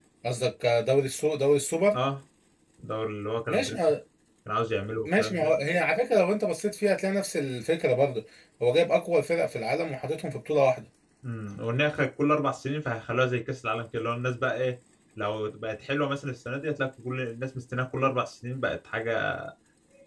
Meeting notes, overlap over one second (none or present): none